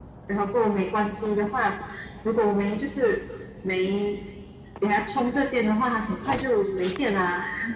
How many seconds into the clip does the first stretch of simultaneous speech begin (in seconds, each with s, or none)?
none